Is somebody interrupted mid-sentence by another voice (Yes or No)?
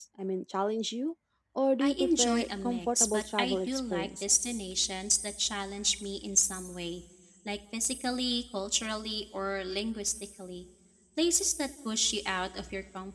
Yes